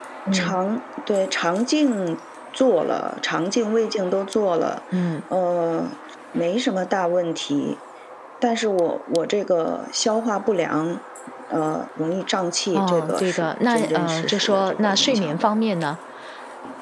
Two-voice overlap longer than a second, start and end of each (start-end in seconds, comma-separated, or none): 12.7-15.5